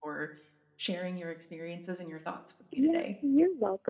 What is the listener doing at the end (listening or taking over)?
taking over